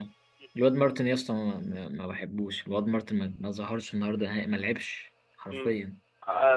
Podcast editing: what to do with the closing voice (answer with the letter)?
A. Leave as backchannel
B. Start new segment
B